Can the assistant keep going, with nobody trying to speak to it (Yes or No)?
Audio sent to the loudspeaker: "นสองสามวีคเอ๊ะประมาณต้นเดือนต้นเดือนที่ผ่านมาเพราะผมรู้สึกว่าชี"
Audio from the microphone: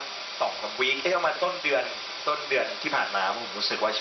Yes